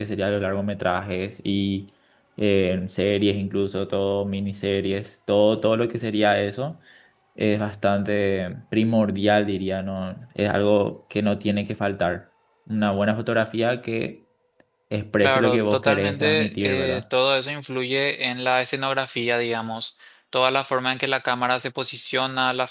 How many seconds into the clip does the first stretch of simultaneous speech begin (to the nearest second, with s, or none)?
15 s